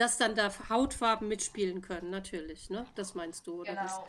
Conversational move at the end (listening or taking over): taking over